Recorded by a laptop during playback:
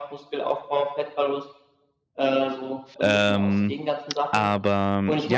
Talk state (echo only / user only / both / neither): both